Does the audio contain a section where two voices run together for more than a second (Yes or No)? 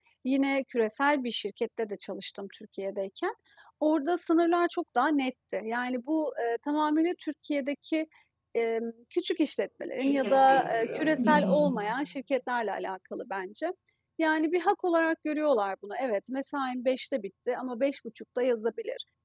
Yes